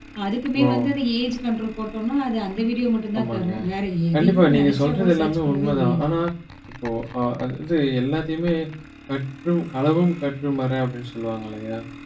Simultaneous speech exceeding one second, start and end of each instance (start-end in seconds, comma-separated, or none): 4.2-6.1